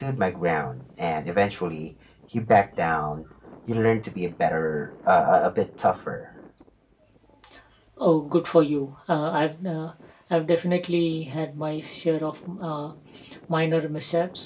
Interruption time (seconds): none

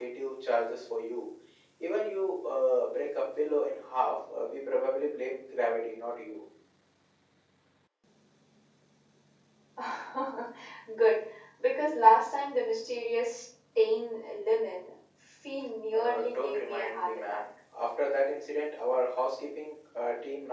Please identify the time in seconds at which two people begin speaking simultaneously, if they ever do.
15.9 s

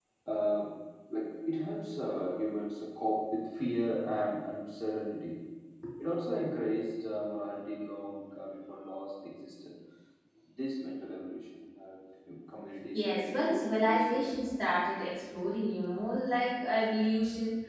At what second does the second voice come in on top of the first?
12.9 s

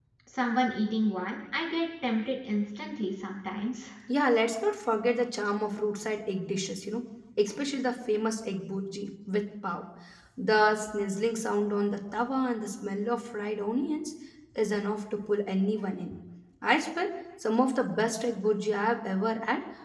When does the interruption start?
none

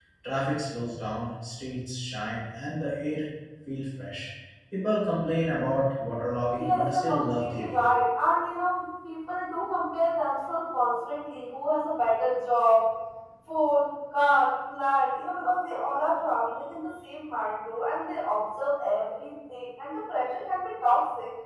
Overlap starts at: 6.5 s

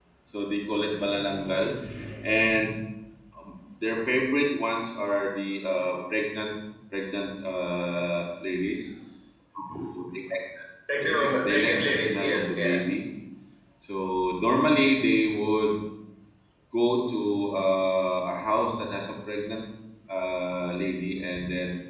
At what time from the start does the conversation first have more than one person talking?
11.0 s

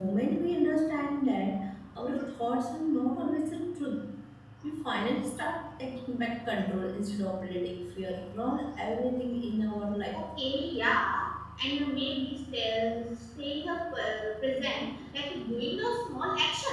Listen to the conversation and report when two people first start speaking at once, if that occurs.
none

